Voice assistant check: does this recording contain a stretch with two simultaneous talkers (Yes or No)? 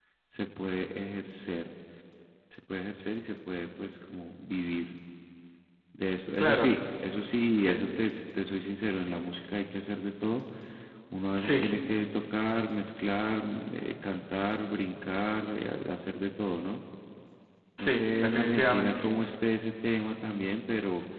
Yes